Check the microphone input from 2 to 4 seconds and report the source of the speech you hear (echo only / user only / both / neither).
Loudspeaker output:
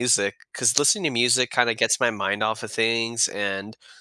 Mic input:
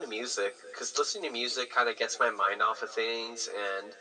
echo only